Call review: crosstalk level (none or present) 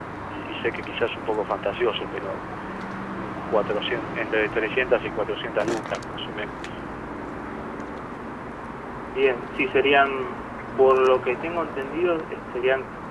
none